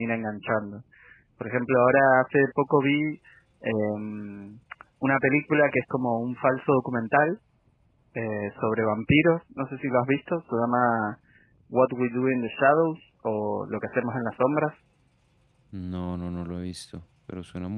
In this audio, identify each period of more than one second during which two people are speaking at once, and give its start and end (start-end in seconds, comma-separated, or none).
none